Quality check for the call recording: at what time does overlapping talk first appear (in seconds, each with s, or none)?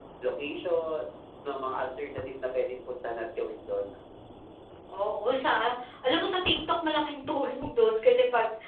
none